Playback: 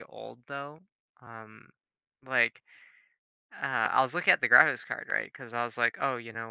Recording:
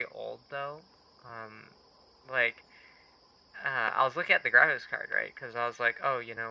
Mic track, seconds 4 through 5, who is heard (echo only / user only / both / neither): echo only